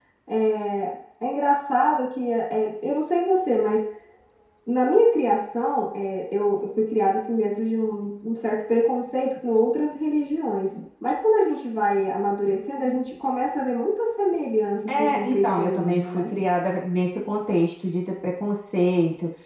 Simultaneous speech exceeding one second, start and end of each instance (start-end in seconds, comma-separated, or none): 14.9-16.2